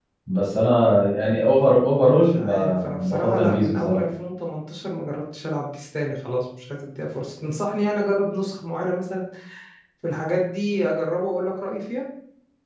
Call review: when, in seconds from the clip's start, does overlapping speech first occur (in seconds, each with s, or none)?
2.0 s